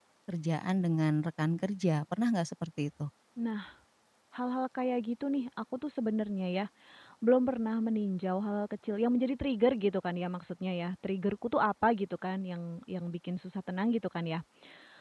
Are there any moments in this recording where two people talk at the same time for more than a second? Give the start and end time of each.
none

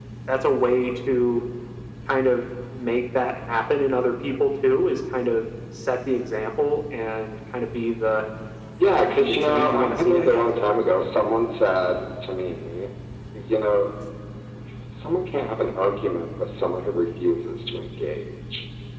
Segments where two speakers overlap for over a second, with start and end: 8.9-10.5

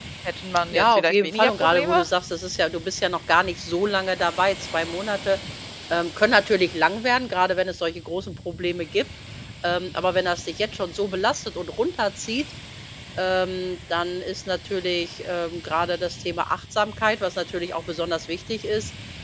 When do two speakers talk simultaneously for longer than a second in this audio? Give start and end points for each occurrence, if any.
0.7-2.0

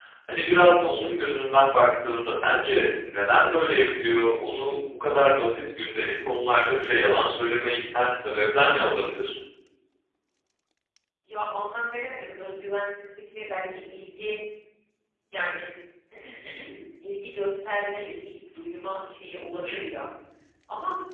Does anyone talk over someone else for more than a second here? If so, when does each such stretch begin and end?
none

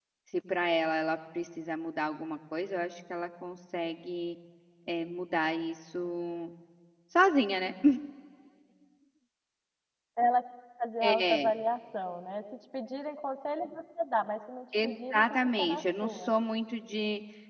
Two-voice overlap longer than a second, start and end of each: 14.8-16.3

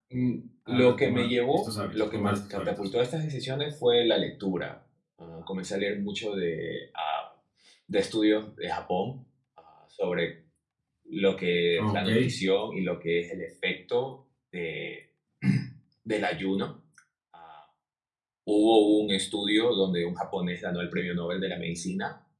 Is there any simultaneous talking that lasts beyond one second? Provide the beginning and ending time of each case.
0.7-2.9

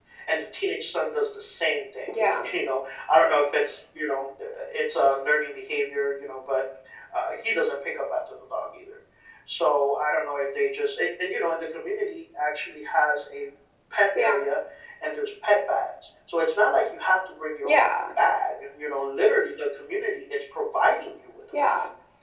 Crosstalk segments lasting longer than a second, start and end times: none

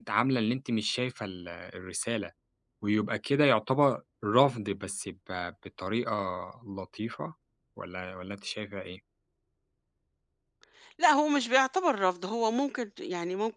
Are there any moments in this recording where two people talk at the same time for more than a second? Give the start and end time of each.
none

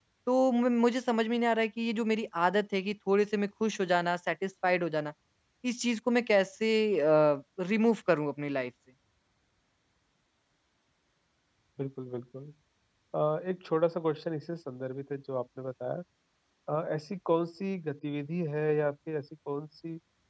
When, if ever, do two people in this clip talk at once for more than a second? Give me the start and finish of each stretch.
none

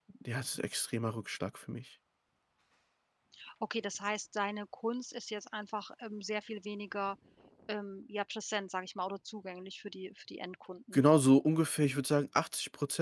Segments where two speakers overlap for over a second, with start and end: none

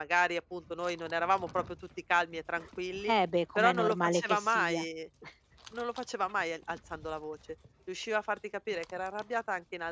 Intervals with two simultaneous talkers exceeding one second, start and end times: 3.6-4.8

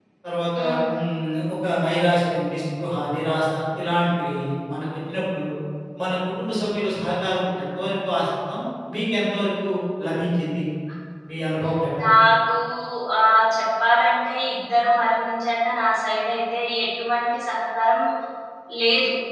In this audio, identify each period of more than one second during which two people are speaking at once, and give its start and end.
none

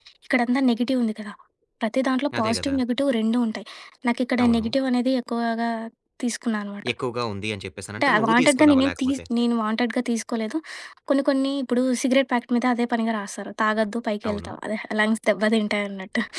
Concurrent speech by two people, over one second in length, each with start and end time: 8.0-9.2

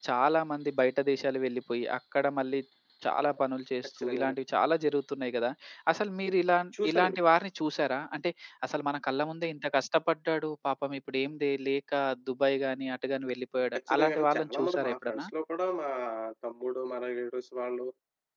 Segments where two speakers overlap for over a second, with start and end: 13.9-15.3

